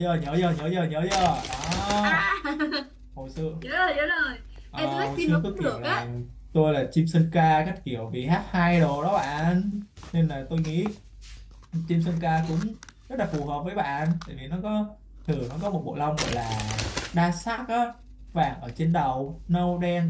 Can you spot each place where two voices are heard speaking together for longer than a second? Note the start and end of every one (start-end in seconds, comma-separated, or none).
4.8-6.1